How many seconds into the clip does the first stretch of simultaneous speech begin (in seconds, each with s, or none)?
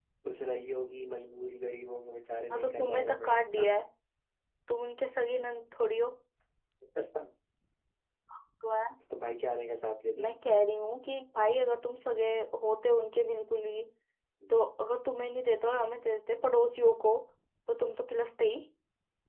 2.5 s